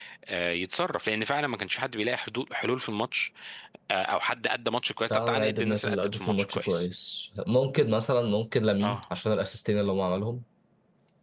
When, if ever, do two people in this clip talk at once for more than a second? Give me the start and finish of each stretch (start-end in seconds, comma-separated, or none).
5.1-6.9